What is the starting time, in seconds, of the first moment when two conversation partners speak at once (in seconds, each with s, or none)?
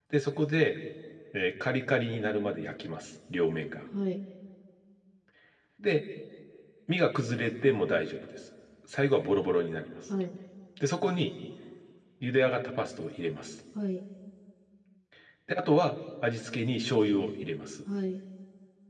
none